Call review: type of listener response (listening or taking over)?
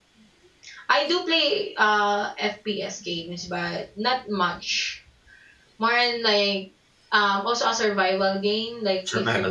listening